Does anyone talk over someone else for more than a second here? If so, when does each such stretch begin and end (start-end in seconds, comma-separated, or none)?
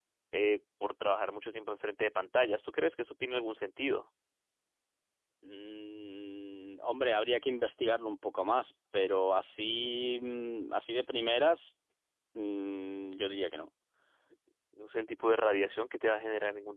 none